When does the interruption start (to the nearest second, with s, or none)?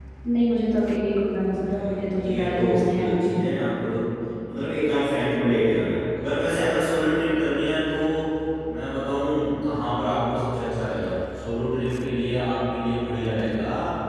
2 s